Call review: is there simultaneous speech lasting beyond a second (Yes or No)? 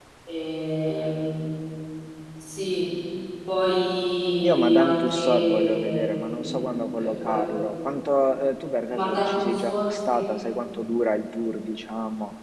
Yes